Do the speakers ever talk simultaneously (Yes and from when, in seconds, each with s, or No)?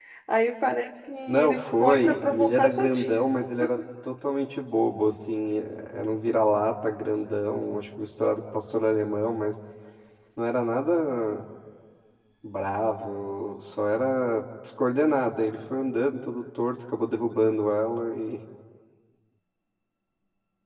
Yes, from 1.3 s